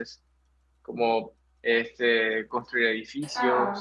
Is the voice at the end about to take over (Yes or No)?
No